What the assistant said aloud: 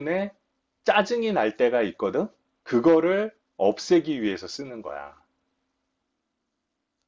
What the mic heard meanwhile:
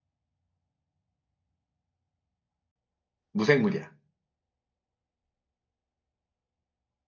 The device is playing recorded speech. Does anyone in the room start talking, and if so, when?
3.3 s

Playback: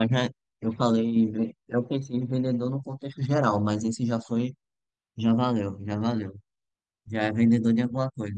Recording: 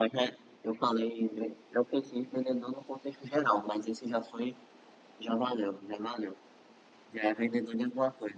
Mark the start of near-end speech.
none

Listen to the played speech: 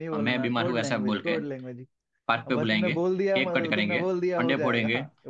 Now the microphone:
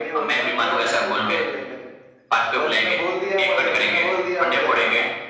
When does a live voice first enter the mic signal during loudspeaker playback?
1.2 s

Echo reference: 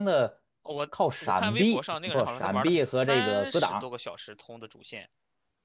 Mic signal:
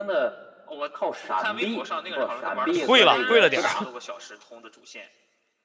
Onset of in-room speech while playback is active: 2.8 s

